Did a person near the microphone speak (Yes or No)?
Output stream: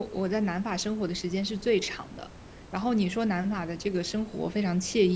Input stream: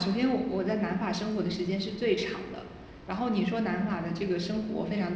No